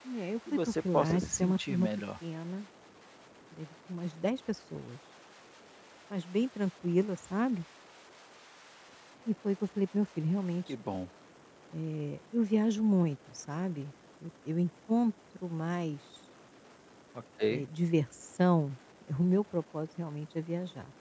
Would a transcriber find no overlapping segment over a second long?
No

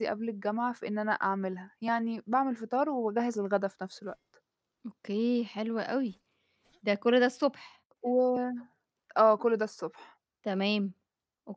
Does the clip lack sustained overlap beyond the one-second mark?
Yes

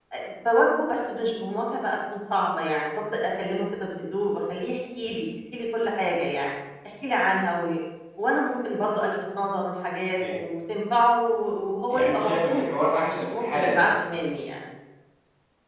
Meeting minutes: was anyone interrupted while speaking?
Yes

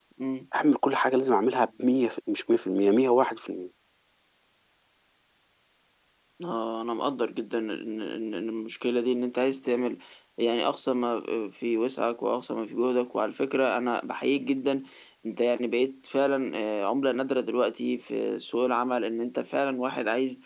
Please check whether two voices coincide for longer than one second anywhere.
No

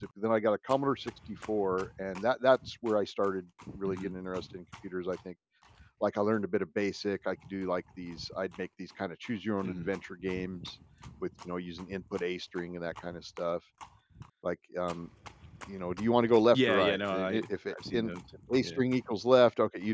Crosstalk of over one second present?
Yes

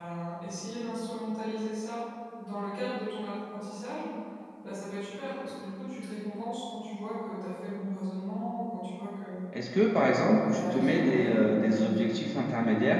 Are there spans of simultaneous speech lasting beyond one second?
Yes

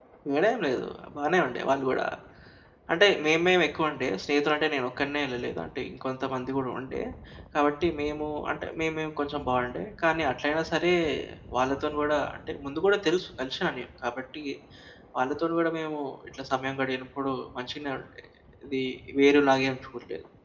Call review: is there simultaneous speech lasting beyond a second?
No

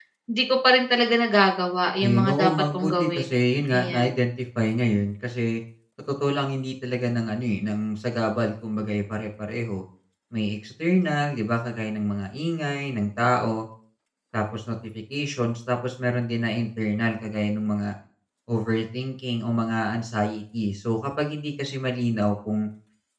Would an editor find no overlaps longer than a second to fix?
No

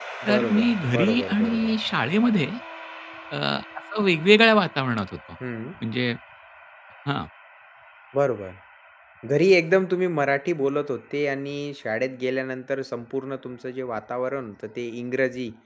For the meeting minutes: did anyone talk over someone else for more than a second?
Yes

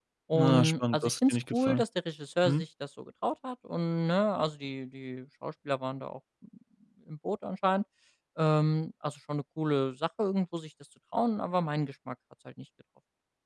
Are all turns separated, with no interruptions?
No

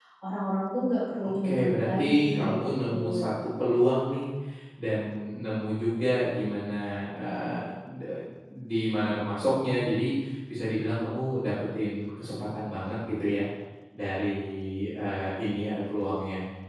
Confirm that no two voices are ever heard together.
No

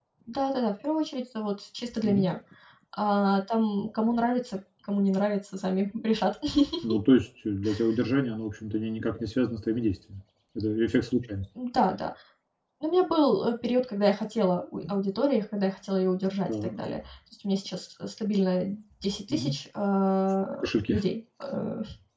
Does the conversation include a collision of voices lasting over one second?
No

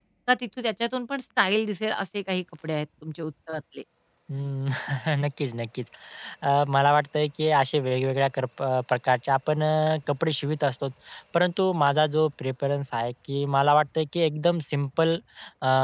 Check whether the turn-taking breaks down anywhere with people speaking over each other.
No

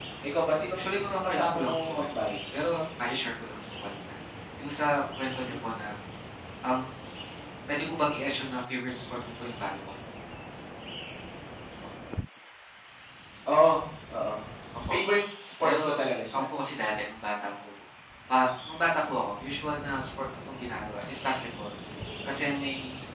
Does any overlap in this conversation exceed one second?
Yes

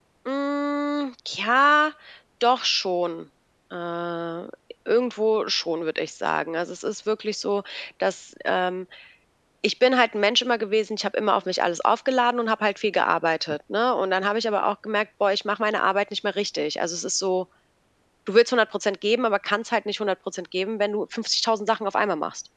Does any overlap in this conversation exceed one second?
No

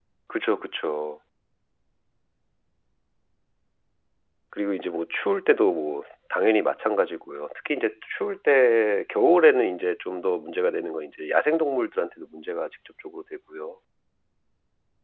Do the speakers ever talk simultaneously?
No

